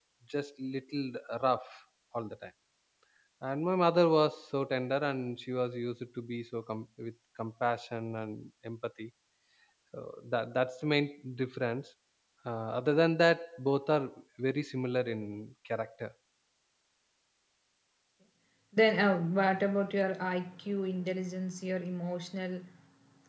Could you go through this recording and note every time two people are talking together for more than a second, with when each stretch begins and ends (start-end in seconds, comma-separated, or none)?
none